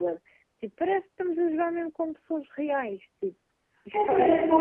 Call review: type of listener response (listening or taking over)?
taking over